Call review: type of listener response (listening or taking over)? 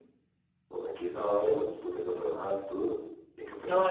taking over